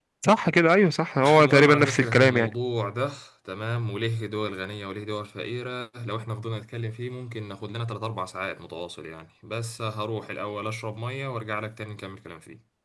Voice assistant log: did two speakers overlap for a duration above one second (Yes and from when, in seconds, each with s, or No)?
Yes, from 1.4 s